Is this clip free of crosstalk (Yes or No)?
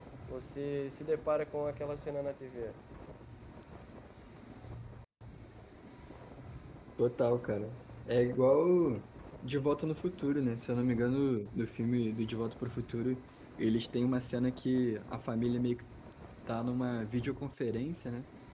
Yes